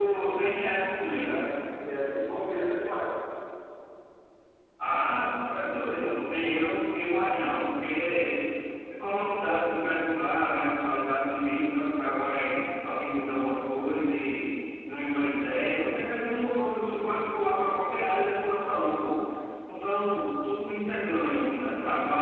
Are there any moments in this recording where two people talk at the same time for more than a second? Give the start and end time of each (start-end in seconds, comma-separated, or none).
none